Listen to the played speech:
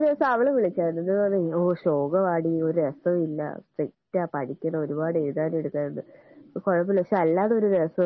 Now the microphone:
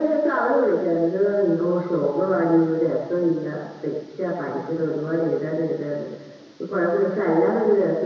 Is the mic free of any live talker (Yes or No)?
Yes